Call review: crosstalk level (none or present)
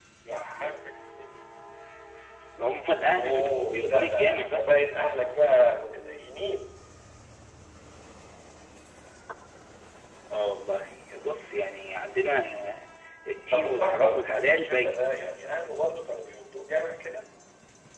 present